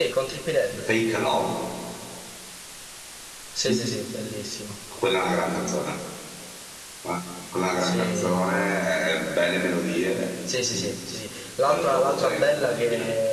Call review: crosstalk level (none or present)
present